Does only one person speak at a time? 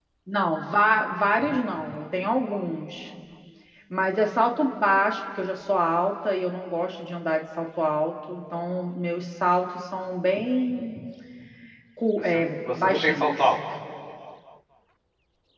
No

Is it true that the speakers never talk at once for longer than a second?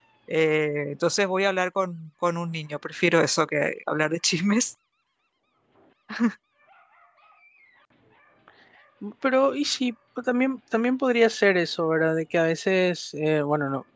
Yes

